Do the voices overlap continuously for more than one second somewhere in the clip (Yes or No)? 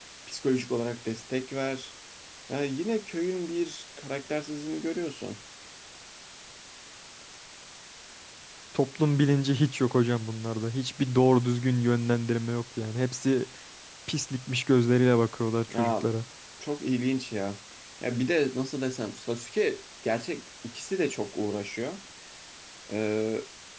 No